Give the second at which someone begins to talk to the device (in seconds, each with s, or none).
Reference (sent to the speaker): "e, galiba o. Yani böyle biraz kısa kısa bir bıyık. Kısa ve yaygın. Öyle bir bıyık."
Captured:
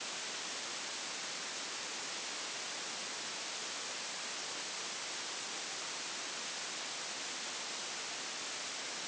none